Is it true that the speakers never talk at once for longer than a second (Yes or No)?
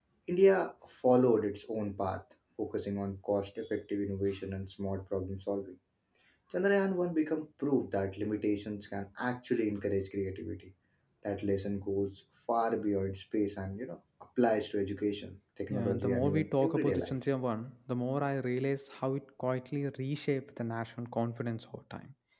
No